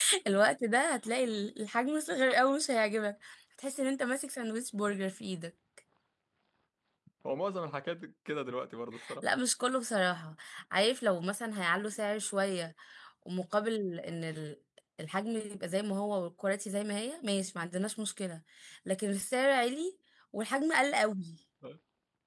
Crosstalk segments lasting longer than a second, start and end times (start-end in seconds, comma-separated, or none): none